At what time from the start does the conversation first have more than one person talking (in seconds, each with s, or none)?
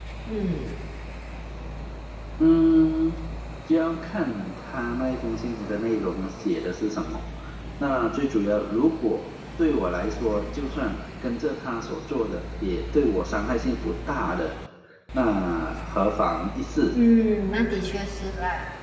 none